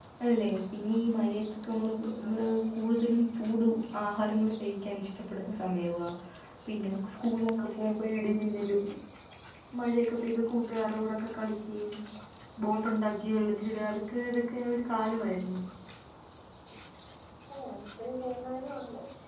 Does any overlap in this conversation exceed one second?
No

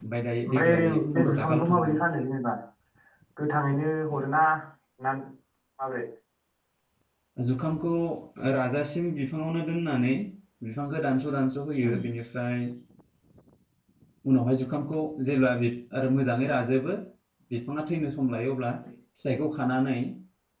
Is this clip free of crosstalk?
No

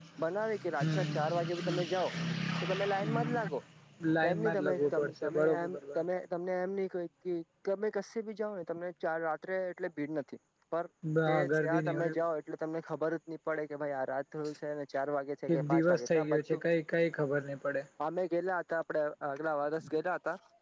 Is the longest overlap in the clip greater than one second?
Yes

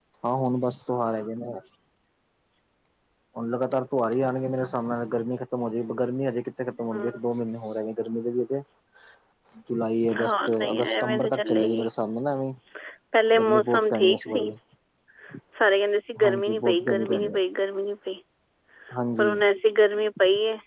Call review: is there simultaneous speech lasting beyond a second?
Yes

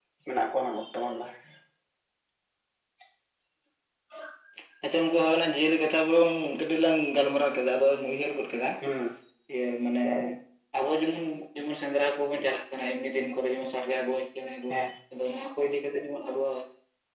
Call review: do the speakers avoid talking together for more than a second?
Yes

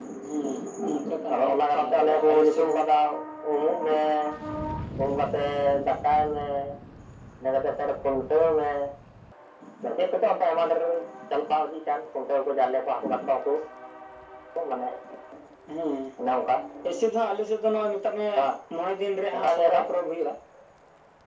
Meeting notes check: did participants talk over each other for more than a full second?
Yes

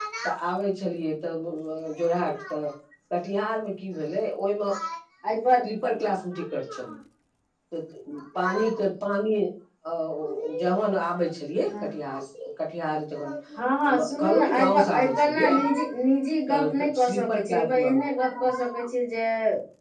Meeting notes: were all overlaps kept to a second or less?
No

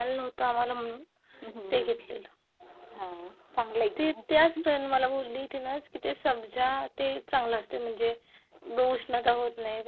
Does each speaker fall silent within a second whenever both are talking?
Yes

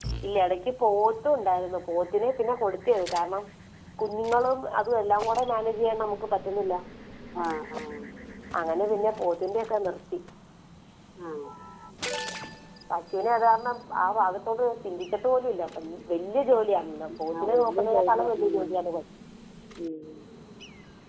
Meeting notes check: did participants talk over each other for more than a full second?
Yes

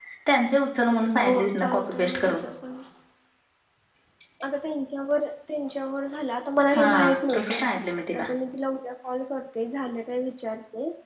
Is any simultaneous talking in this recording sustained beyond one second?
Yes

